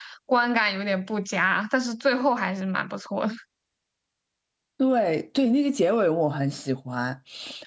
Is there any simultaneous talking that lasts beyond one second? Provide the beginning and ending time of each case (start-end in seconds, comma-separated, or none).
none